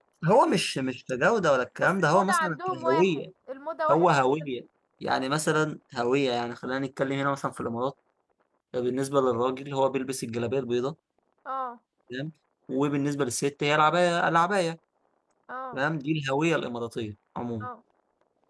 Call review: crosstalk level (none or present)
present